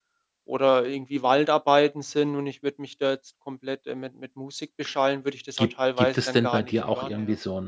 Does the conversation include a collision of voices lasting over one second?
Yes, from 5.6 s

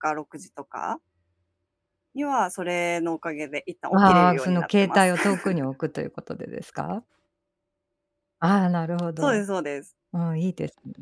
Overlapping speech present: Yes, from 3.9 s

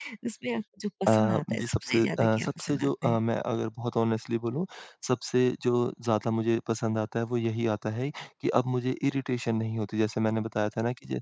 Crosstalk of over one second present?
Yes, from 1.1 s

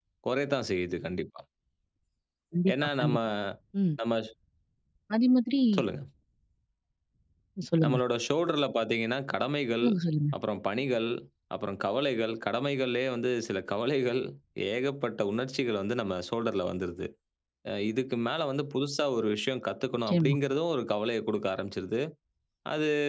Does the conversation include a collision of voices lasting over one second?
No

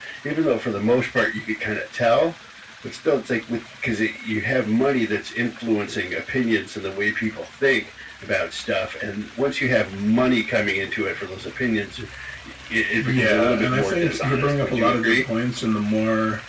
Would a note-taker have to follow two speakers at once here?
Yes, from 12.9 s

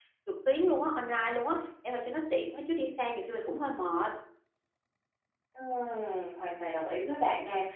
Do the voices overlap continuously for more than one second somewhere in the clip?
No

